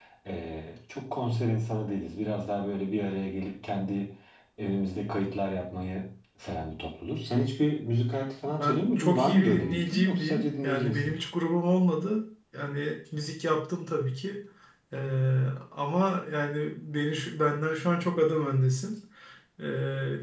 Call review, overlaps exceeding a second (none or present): present